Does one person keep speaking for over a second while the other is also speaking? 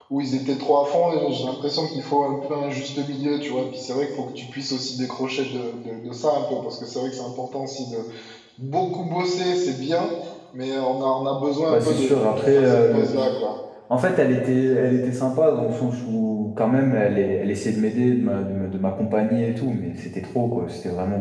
Yes, from 11.7 s

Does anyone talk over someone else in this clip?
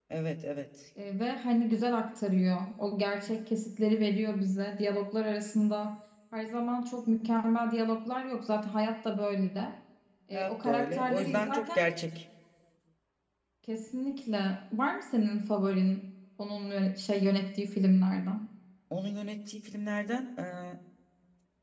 Yes, from 10.3 s

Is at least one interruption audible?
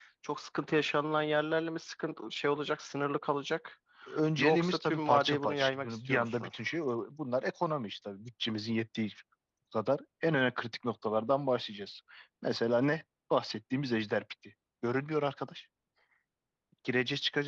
Yes, from 4.4 s

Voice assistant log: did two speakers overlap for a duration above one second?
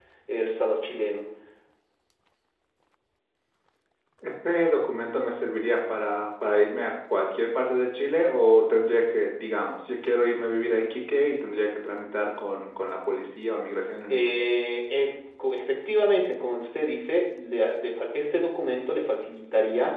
No

